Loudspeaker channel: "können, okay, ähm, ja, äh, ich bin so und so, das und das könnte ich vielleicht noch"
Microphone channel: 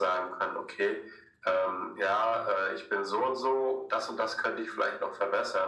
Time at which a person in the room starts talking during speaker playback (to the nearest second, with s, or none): none